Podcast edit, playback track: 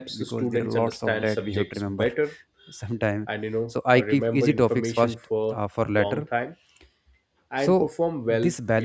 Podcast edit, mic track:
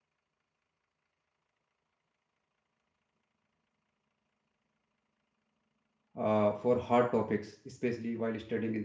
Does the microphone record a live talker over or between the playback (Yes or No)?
Yes